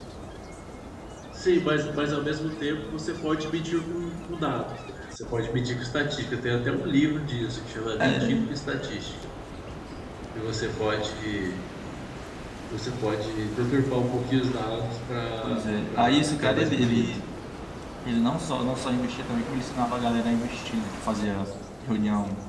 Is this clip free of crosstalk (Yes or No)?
No